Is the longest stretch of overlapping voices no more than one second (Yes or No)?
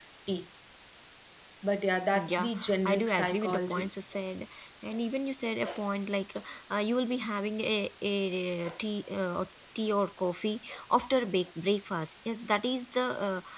No